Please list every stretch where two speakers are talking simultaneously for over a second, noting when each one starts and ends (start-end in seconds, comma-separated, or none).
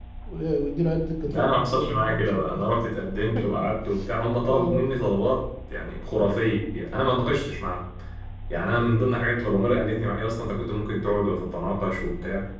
1.2-2.6